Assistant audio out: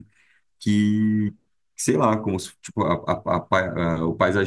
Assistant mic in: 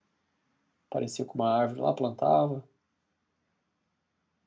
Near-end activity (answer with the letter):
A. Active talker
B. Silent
A